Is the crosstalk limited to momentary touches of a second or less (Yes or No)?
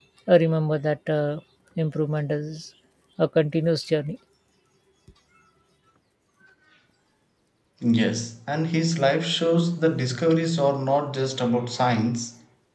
Yes